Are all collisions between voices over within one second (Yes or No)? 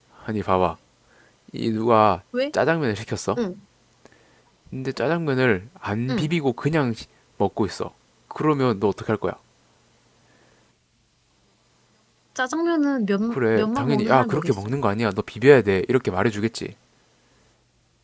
No